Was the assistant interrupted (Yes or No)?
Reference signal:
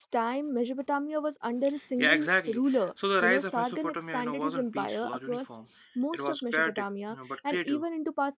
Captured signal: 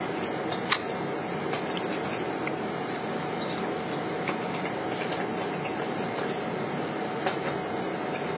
No